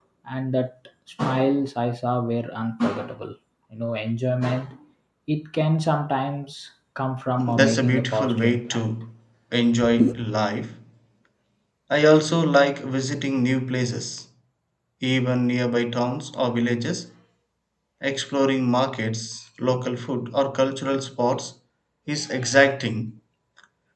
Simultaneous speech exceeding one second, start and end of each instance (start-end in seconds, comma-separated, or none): 7.5-8.8